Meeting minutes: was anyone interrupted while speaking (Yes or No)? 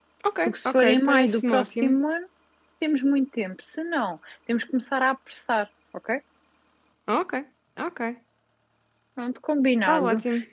Yes